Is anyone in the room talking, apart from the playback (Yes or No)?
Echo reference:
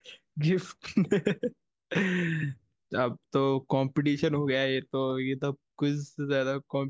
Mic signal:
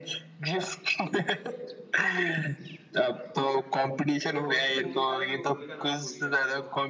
Yes